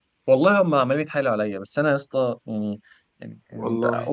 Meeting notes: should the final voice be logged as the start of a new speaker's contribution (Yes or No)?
No